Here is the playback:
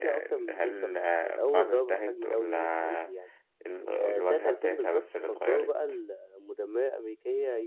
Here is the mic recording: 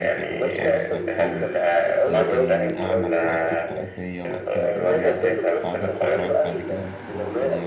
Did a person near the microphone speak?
Yes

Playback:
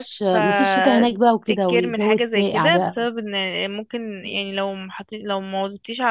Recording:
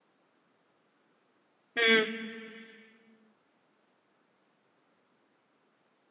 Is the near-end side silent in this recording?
No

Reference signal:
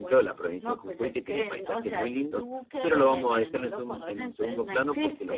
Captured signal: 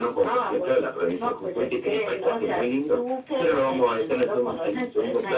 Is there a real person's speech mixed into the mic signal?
No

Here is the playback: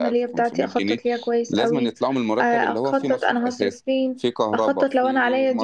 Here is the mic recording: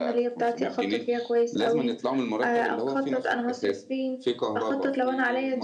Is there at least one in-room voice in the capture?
No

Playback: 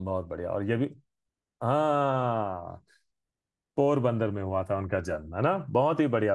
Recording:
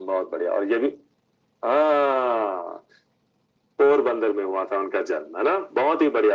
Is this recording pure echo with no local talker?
Yes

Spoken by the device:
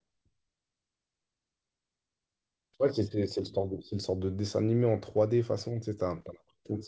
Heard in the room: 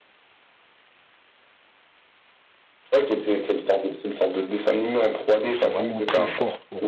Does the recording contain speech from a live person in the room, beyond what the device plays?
Yes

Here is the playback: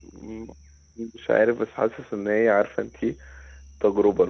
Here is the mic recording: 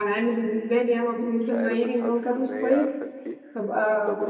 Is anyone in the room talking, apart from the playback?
Yes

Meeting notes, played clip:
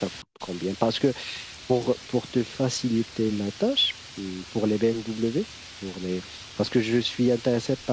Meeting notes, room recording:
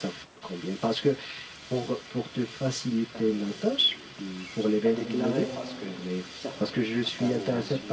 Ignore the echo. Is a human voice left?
Yes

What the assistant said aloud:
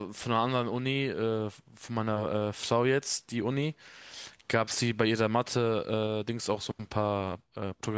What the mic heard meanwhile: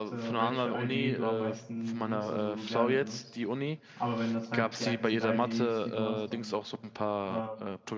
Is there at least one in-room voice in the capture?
Yes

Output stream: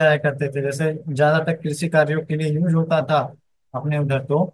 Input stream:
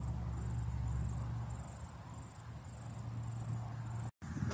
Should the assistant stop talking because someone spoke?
No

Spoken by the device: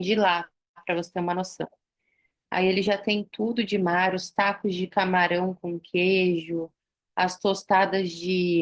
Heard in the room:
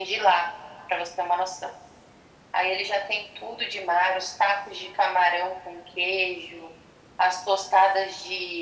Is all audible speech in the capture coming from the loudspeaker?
Yes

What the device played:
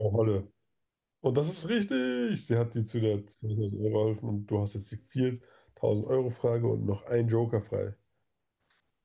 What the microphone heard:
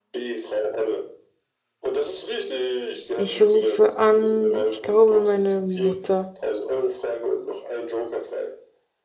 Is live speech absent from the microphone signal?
No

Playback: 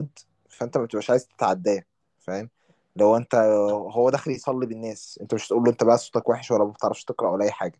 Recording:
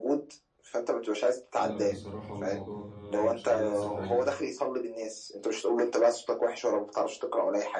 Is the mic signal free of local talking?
No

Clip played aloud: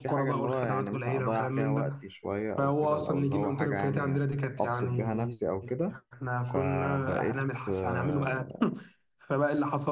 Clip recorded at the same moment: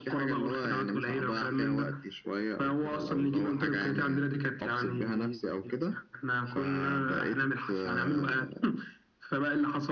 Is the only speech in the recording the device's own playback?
Yes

